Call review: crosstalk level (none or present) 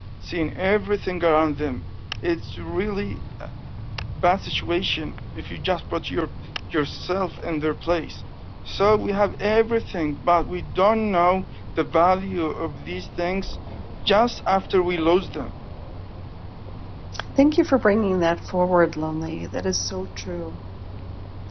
none